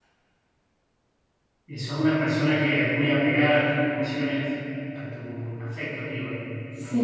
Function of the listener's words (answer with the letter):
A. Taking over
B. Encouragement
A